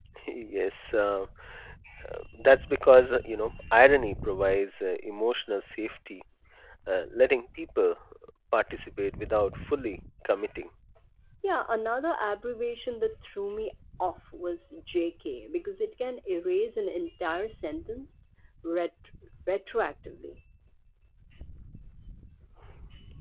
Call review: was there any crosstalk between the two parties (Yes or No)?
No